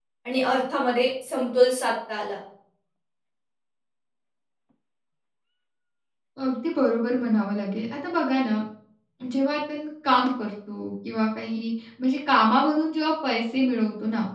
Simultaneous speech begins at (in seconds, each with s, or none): none